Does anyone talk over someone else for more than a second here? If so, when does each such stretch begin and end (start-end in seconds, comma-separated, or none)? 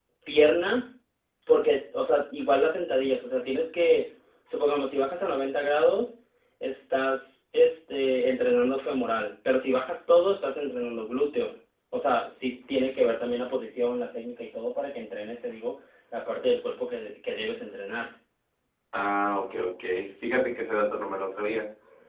none